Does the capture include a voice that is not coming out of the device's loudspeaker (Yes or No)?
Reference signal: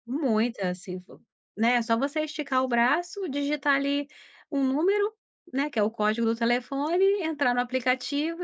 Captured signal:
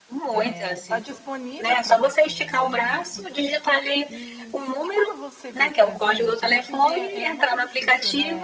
Yes